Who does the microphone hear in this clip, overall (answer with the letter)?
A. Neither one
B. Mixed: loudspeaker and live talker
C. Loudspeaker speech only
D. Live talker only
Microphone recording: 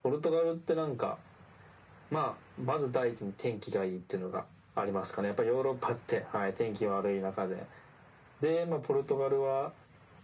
C